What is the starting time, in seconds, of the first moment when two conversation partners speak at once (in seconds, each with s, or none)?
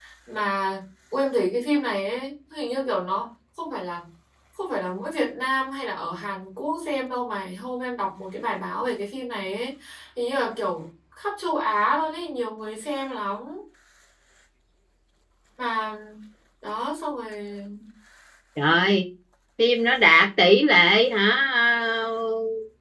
none